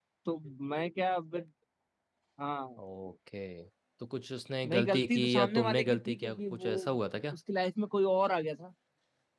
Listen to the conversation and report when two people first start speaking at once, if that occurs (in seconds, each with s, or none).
4.7 s